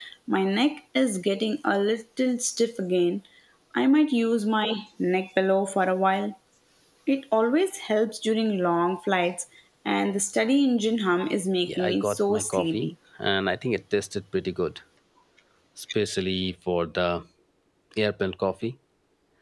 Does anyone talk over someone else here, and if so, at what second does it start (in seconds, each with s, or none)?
11.7 s